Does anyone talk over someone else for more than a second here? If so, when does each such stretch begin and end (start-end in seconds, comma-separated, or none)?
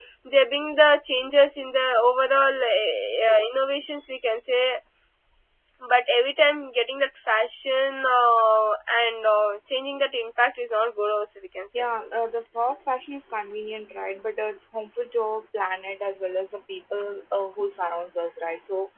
none